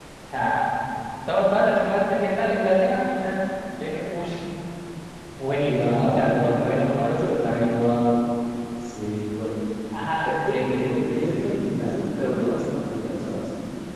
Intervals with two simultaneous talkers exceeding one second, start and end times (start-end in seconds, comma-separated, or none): 5.6-7.7, 10.3-11.6